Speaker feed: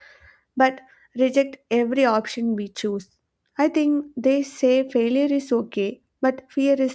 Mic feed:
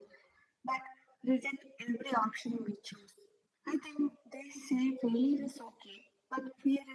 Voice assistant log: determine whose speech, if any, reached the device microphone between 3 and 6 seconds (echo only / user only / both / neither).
echo only